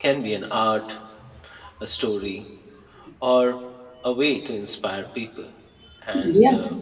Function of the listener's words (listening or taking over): listening